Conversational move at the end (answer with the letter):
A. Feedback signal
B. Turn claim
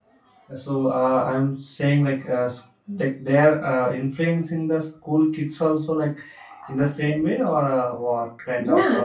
B